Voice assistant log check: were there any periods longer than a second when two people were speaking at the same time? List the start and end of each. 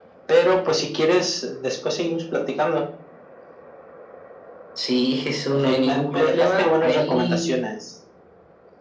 5.6-7.5

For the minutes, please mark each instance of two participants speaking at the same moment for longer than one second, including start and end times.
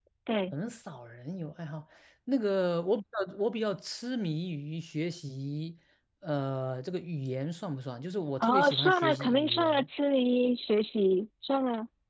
8.4-9.9

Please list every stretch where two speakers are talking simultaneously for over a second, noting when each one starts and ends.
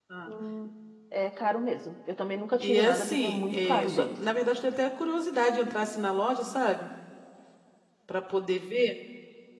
2.6-4.1

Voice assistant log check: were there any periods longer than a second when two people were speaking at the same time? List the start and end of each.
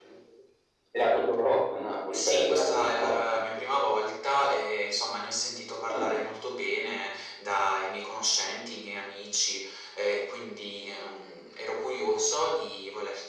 2.1-3.5

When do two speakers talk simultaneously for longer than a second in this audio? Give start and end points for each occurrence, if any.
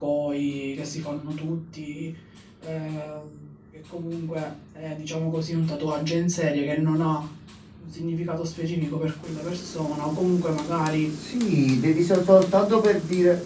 none

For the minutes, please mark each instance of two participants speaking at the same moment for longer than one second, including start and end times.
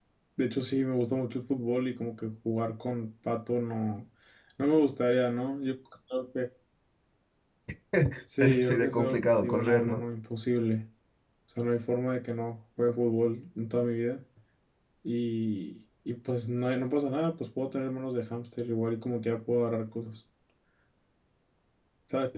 8.3-10.0

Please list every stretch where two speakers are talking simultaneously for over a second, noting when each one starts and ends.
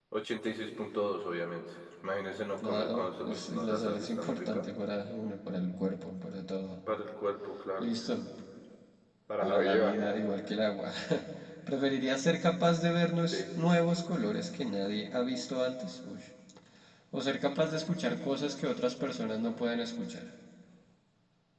2.6-4.6

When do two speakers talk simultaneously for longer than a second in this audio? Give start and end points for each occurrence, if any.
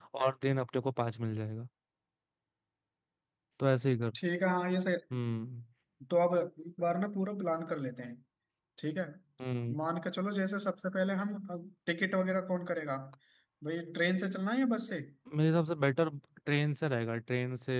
none

